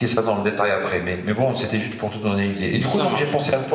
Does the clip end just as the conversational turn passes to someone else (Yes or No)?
No